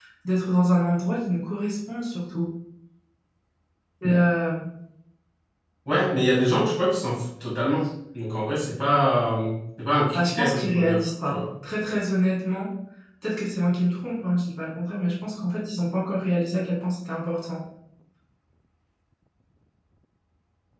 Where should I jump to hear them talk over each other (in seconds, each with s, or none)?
10.1 s